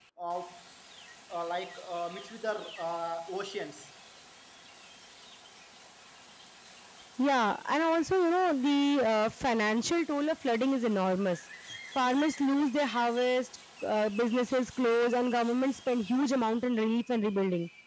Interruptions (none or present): none